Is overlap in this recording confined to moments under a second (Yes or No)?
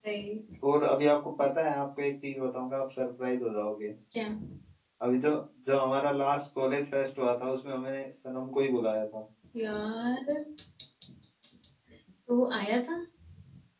Yes